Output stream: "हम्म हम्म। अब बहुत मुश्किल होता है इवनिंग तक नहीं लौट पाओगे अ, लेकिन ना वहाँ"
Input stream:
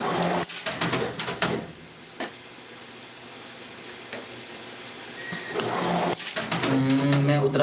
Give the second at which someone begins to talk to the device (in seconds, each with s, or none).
6.7 s